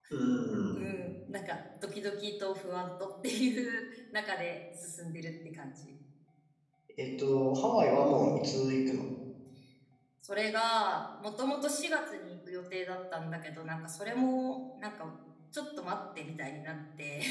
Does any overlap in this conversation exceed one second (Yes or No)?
No